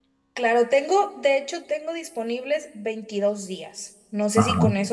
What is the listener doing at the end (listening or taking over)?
listening